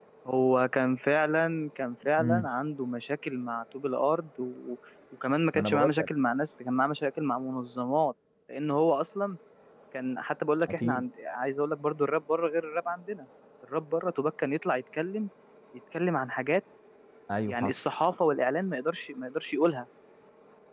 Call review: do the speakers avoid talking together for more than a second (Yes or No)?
Yes